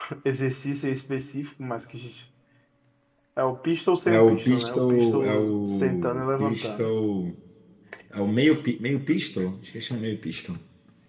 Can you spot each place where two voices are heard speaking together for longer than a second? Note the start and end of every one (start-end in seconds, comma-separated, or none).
4.1-6.9